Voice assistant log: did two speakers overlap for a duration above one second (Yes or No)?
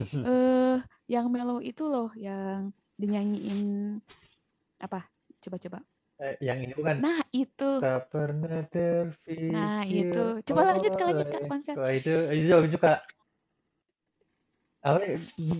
Yes